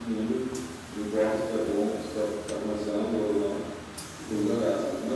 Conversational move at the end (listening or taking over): listening